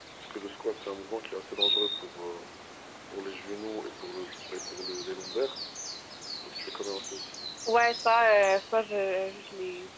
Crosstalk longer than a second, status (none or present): none